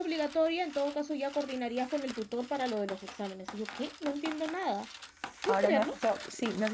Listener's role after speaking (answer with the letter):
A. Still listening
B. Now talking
B